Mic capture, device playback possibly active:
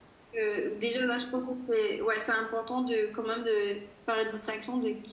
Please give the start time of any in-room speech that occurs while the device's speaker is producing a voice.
0 s

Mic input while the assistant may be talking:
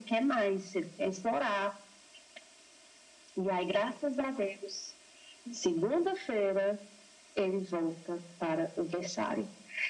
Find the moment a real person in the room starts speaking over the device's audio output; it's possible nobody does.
none

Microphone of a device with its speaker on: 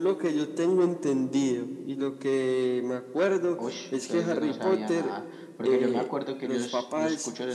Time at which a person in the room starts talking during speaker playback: 4 s

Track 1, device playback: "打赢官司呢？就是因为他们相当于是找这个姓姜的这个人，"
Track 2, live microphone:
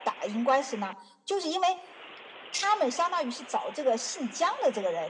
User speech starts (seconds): none

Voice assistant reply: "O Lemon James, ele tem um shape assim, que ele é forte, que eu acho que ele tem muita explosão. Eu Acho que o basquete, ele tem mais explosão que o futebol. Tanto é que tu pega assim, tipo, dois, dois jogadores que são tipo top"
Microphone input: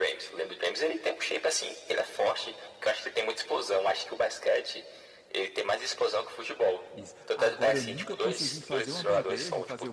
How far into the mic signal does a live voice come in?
7 s

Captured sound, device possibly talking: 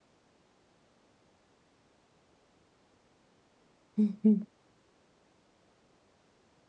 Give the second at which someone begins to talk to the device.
4 s

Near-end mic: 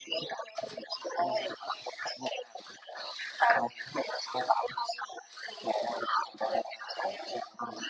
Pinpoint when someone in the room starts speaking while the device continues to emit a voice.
none

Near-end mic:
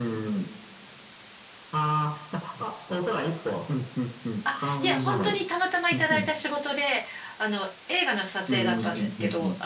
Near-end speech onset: 4 s

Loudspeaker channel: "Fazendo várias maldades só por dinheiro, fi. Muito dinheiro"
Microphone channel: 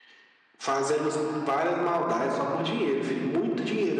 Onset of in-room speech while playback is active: none

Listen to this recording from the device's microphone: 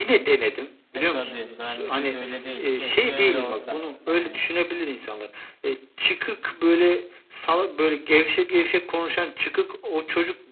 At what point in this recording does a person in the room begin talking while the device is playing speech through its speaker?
1 s

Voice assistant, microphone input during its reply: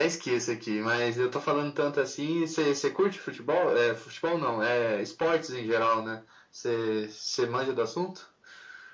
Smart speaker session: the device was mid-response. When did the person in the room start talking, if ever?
none

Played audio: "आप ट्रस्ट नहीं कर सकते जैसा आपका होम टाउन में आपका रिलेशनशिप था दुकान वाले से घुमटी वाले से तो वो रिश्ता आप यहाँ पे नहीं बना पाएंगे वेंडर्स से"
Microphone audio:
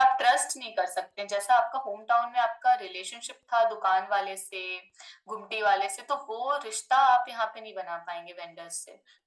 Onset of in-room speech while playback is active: none

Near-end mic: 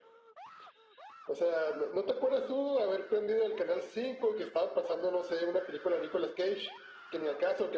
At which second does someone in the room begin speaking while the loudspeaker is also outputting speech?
none

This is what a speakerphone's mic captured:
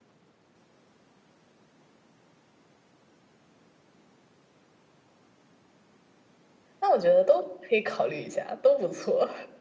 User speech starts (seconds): 7 s

